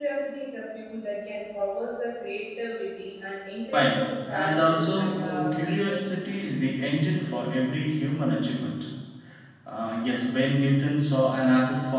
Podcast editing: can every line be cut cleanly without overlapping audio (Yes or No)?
No